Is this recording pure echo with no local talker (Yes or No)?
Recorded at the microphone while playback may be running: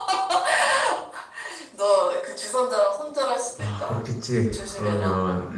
No